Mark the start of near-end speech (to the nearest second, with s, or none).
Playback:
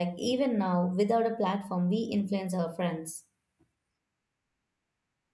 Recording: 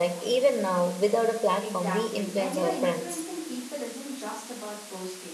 2 s